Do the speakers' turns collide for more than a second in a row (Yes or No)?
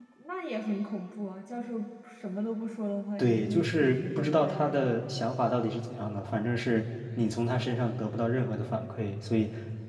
Yes